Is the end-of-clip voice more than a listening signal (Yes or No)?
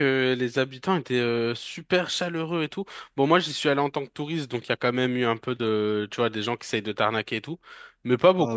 Yes